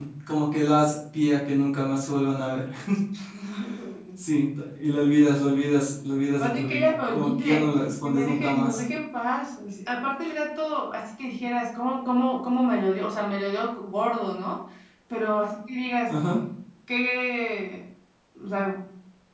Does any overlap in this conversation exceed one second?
Yes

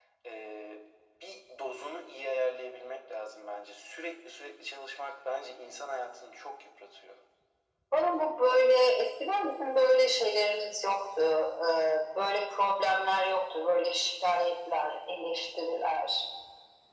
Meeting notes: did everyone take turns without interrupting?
Yes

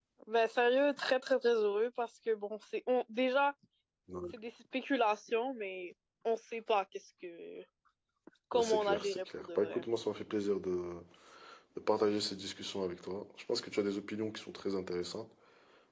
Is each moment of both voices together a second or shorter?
No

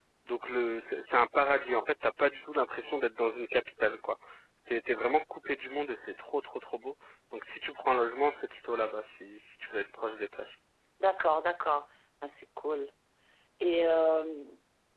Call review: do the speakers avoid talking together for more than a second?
Yes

